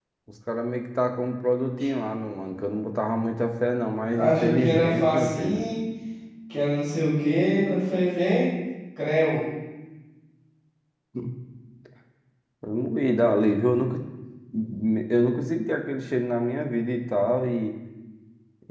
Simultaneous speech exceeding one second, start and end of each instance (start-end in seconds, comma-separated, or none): 4.2-5.6